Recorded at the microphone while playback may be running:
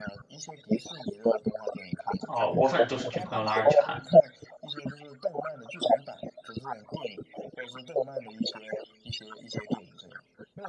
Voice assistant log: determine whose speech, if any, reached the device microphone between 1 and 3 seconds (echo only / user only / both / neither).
both